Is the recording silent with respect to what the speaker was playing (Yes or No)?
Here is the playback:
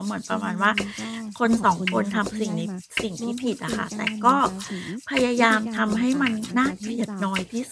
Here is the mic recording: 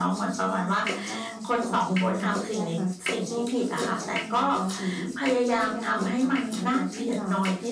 No